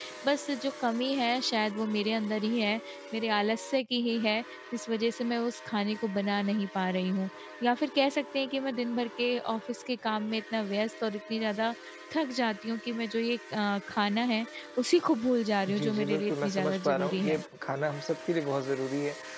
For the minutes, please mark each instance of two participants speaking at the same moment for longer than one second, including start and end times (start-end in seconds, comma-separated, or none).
15.6-17.4